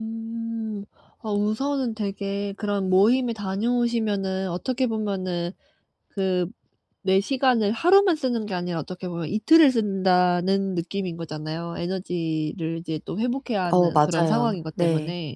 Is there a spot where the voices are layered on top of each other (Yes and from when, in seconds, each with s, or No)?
Yes, from 13.7 s